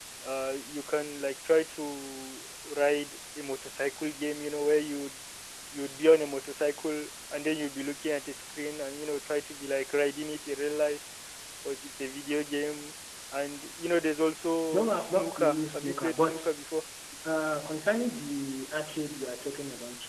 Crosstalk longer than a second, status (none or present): present